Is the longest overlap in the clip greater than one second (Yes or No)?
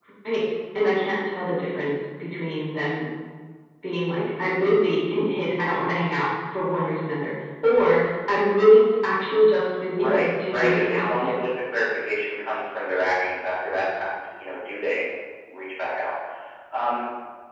Yes